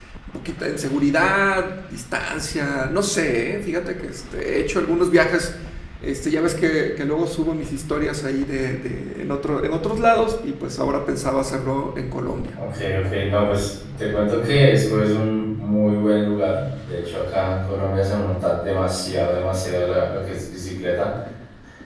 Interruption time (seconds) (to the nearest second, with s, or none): none